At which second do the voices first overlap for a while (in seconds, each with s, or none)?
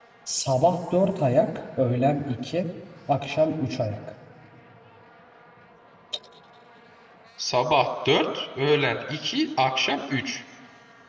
none